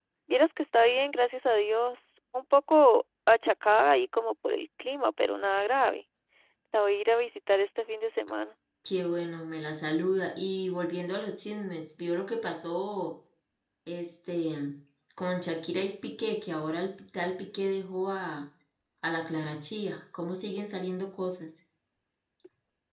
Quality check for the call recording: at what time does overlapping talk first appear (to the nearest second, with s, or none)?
none